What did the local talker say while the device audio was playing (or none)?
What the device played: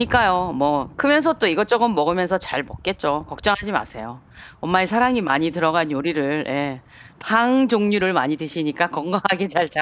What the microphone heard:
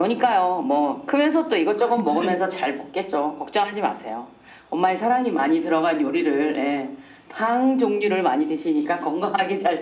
근데